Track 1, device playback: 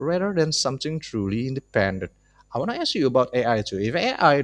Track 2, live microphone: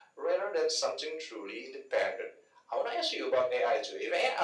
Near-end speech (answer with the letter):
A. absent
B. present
A